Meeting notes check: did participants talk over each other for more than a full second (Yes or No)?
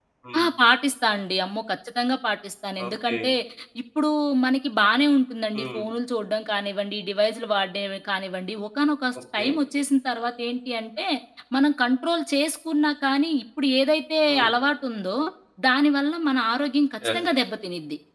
No